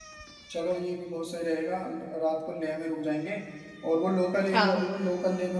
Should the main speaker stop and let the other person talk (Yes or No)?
No